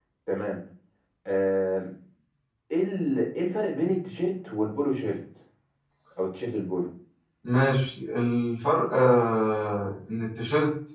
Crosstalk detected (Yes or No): No